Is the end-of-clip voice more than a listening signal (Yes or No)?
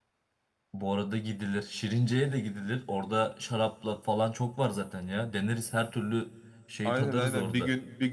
Yes